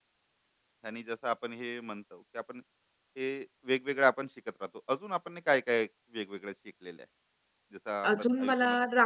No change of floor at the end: No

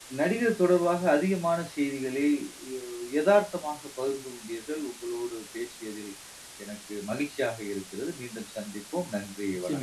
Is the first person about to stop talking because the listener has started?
Yes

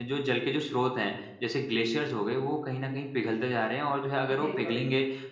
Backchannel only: Yes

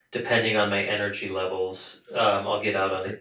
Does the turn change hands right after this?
Yes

